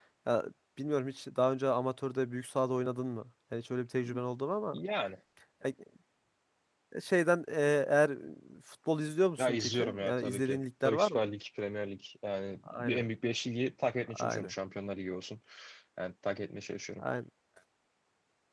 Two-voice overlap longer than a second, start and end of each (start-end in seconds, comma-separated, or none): 9.4-11.3